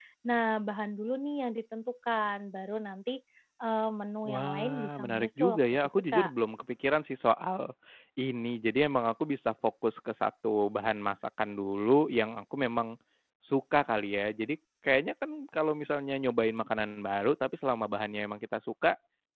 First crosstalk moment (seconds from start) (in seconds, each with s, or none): 4.2 s